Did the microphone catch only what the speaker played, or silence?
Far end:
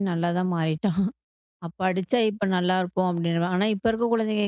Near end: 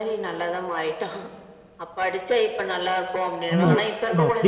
No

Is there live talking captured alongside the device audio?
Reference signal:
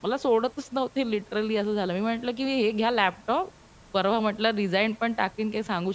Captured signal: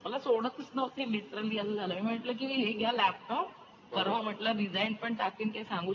Yes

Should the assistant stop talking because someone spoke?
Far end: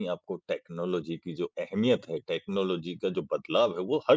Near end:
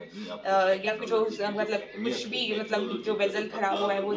Yes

